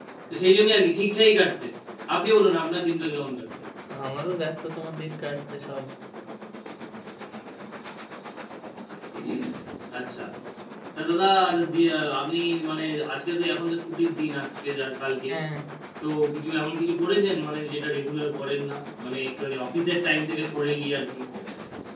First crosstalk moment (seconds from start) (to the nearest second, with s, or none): none